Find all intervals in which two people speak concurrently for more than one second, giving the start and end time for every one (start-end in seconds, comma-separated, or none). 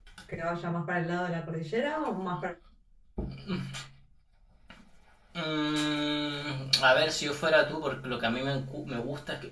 none